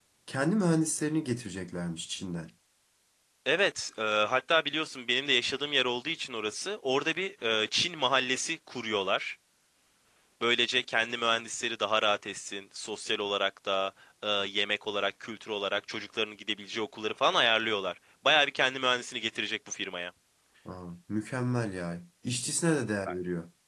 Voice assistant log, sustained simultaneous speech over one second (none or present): none